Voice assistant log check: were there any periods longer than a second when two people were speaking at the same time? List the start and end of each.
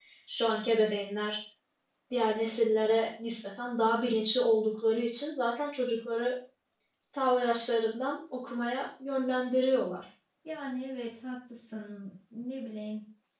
none

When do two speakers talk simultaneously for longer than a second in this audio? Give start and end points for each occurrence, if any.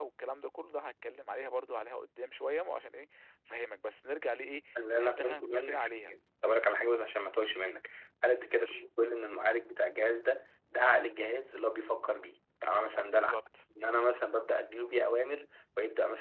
4.8-6.1

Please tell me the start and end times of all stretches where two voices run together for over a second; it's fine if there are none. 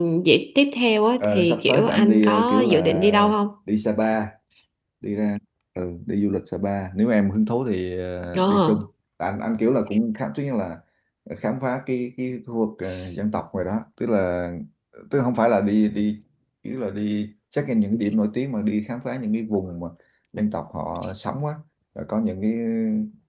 1.2-3.0

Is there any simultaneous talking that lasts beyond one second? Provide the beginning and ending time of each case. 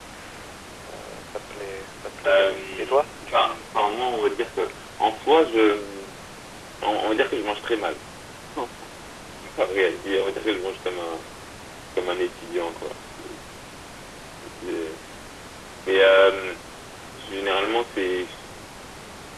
2.3-3.6

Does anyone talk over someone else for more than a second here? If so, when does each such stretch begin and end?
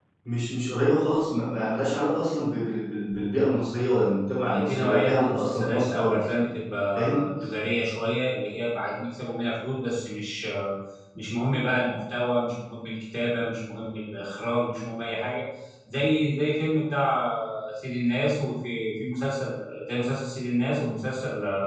4.4-6.3

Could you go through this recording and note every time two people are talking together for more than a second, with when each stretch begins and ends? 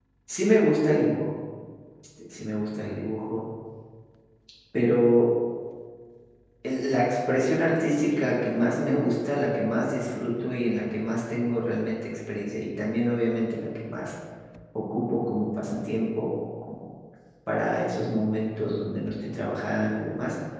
none

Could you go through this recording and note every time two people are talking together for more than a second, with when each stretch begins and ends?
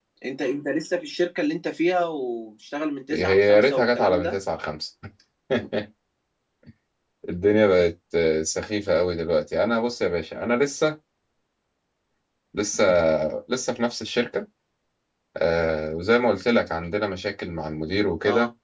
3.1-4.4

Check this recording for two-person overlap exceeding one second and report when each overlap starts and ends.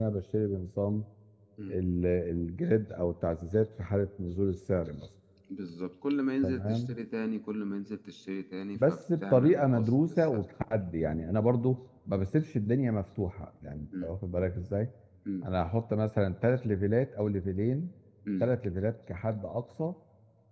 8.8-10.4

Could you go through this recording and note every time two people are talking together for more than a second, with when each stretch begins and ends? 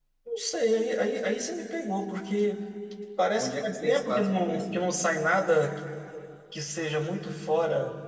3.4-4.9

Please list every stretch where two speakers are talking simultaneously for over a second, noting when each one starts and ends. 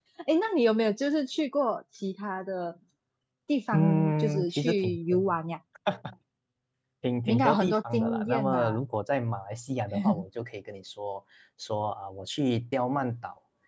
3.7-5.2, 7.3-8.8

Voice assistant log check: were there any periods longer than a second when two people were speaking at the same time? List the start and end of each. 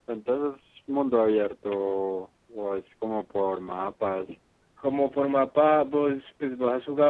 none

